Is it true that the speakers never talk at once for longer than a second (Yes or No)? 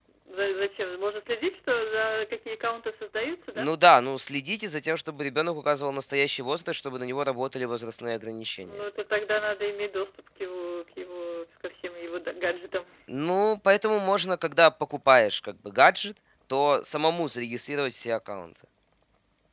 Yes